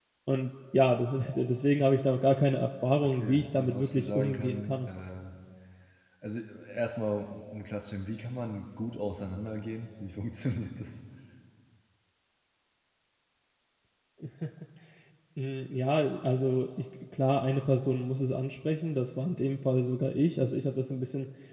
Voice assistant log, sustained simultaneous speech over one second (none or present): present